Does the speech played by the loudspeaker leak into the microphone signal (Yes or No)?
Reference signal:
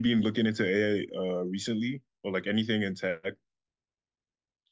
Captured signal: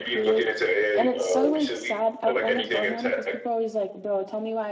Yes